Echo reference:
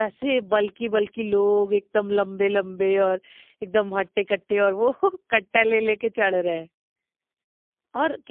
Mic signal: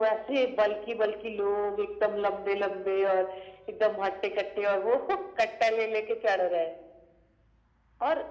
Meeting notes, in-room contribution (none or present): none